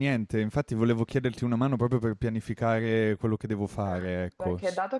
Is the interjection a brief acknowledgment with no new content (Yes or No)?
No